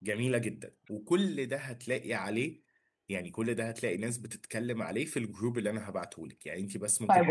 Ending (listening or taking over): taking over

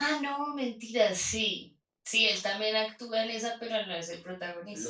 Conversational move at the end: taking over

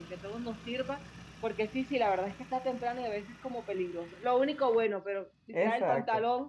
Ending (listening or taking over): listening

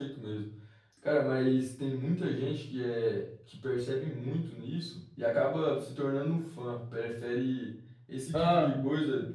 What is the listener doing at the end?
listening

